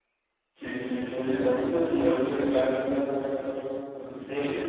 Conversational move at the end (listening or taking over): taking over